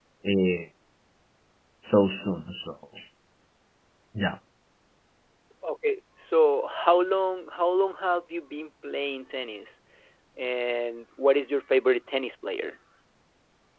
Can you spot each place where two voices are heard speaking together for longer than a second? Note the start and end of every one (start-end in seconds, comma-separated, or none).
none